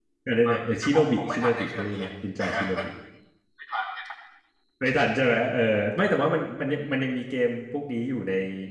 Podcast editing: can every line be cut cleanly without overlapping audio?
No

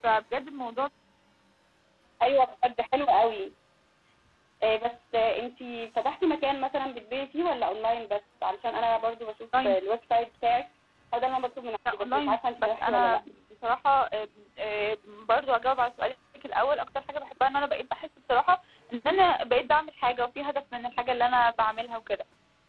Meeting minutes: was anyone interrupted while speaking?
Yes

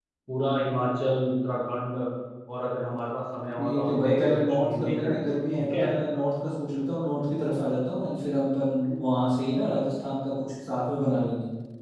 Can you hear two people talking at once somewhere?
Yes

